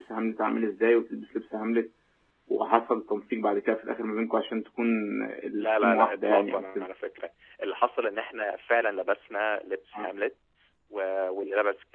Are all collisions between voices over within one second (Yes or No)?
No